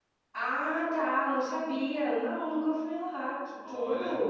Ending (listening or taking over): taking over